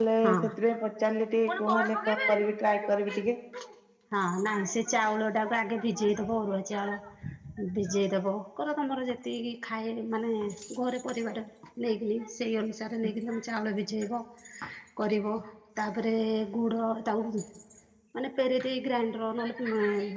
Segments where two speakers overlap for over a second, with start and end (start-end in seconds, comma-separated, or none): 1.5-3.3